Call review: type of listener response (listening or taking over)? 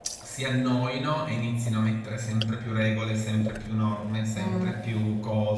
listening